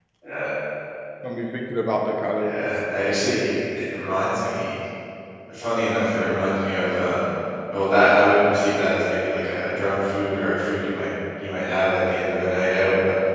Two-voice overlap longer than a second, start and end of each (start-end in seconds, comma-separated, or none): none